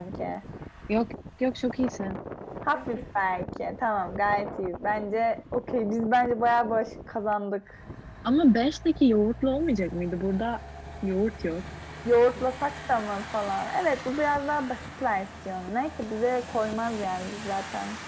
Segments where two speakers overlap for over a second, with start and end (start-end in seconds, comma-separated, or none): none